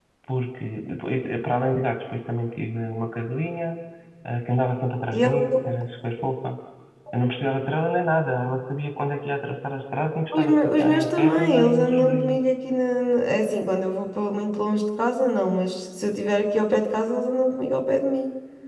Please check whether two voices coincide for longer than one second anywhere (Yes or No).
Yes